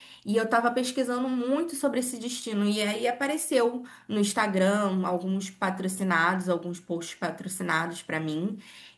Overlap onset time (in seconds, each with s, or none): none